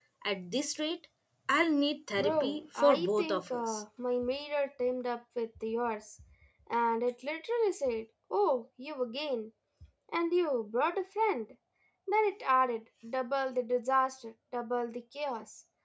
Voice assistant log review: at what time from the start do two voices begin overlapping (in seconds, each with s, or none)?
2.2 s